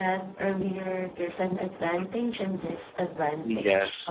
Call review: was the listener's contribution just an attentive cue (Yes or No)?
No